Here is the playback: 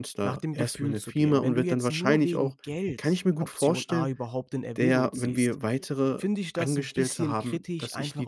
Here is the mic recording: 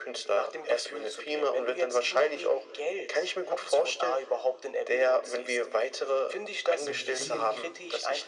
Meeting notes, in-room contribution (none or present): present